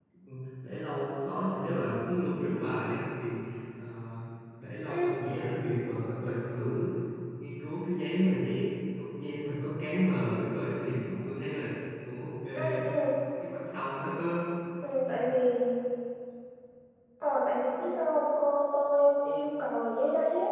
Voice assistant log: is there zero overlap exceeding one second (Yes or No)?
Yes